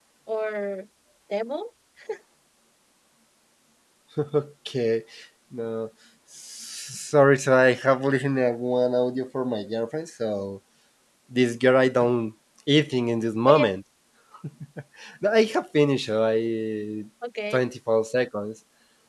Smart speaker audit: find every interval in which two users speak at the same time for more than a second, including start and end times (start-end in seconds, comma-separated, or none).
none